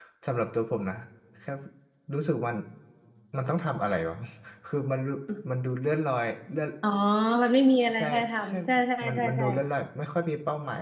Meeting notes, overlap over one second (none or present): none